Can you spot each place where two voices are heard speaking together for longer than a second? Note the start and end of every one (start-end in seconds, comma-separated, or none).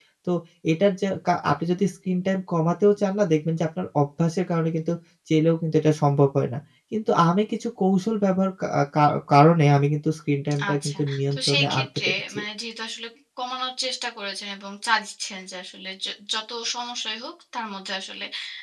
10.7-12.4